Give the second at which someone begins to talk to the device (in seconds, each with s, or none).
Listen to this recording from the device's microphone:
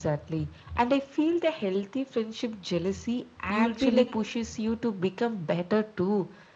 3.5 s